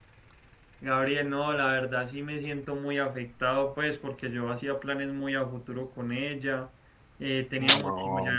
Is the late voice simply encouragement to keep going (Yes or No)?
Yes